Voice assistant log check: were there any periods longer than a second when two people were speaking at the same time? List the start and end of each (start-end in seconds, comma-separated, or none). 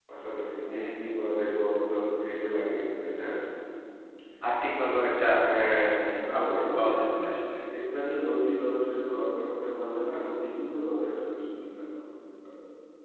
5.9-7.2